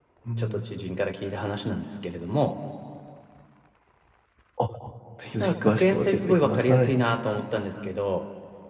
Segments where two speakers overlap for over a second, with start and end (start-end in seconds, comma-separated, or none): 5.4-6.9